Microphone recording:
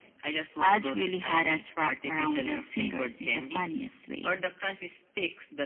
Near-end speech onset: none

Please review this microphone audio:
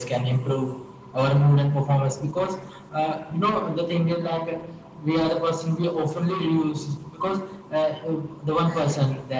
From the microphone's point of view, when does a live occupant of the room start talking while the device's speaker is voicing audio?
none

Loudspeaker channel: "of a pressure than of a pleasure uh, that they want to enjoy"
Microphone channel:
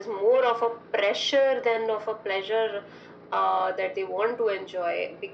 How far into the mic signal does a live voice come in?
none

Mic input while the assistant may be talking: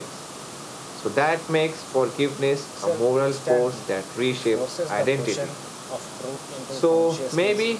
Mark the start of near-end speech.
2.7 s

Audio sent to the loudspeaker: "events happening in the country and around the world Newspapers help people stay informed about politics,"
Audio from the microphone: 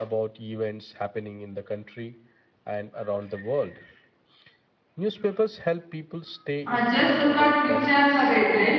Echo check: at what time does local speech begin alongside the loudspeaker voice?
6.6 s

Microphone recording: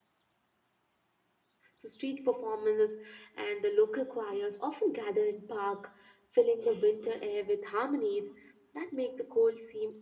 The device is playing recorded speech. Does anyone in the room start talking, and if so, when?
1.7 s

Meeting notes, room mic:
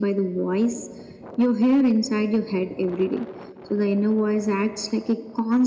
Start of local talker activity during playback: none

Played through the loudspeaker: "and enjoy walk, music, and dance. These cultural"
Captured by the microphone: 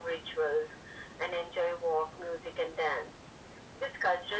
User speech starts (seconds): none

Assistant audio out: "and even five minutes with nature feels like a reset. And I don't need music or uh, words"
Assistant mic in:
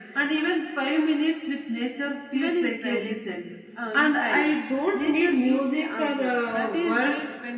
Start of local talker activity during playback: 2.3 s

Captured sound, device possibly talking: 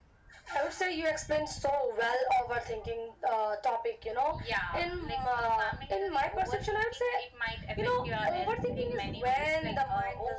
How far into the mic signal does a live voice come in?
none

